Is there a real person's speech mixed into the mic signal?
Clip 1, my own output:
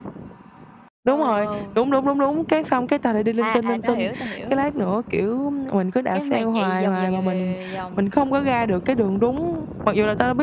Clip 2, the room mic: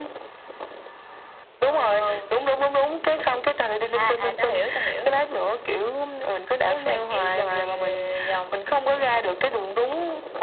No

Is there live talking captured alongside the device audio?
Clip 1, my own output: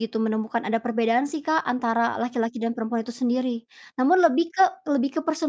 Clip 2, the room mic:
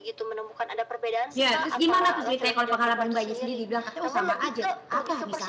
Yes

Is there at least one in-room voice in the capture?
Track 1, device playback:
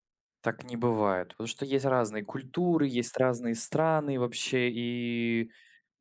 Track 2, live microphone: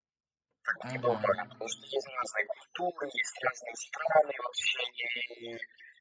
Yes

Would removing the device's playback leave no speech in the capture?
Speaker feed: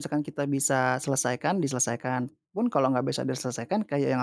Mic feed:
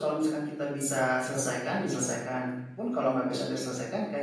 Yes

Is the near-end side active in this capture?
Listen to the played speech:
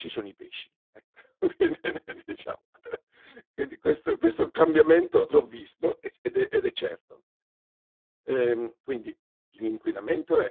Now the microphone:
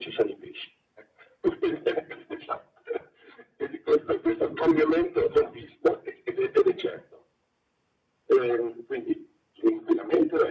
No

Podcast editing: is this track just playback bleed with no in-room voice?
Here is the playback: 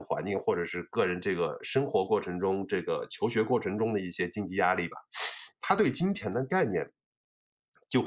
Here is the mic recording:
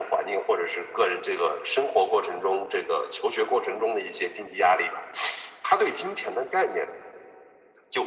Yes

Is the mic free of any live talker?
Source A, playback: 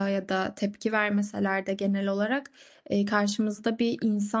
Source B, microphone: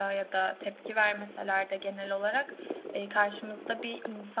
Yes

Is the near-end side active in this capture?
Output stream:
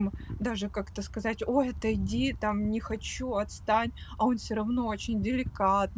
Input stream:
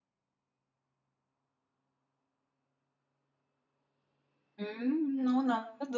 Yes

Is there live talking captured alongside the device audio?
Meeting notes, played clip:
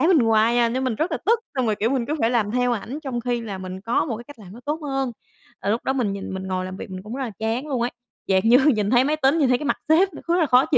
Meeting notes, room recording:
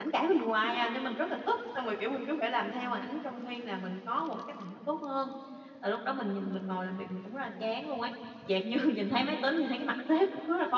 No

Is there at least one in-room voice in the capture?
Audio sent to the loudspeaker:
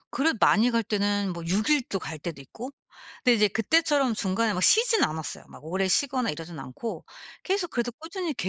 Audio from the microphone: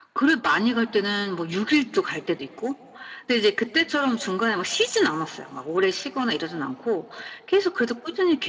No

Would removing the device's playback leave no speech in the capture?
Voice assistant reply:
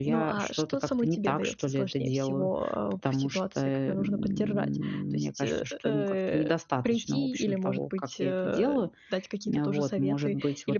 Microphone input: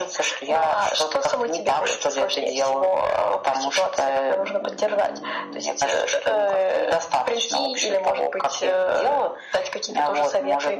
Yes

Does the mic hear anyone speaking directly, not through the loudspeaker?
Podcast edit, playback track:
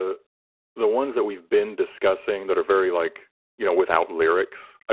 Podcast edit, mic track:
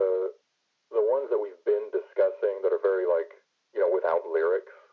No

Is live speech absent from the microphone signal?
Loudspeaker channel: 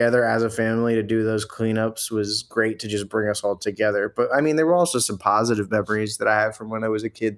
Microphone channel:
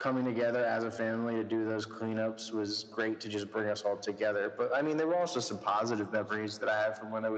Yes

